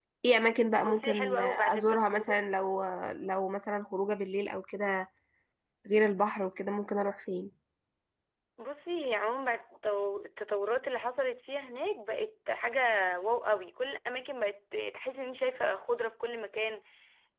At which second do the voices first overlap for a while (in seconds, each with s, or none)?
0.7 s